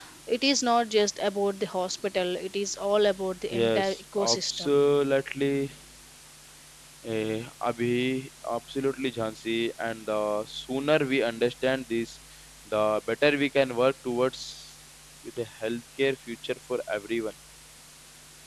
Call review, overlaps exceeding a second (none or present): present